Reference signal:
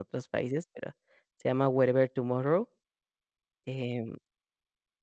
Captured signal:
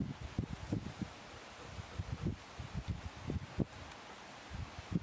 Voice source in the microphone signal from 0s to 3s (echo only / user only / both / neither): neither